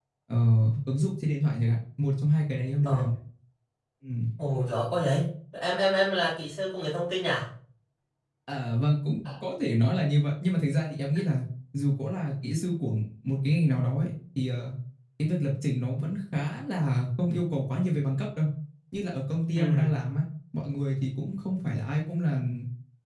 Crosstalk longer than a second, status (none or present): none